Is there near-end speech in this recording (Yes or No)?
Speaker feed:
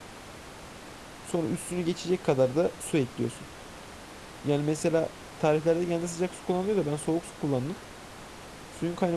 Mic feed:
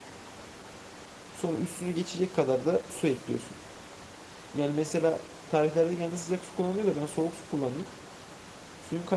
No